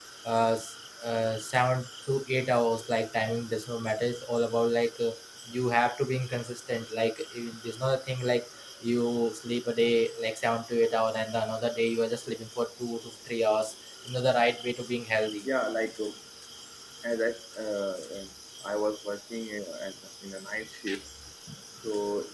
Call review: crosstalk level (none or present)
none